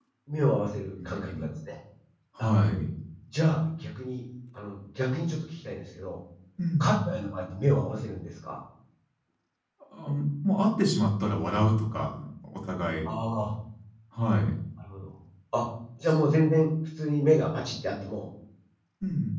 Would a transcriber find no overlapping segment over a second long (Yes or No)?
Yes